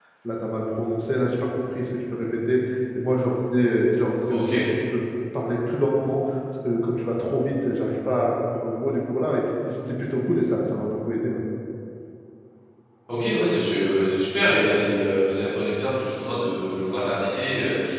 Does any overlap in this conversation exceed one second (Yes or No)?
No